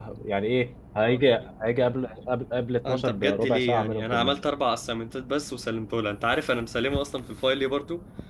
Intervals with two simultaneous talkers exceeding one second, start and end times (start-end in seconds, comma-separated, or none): 2.9-4.4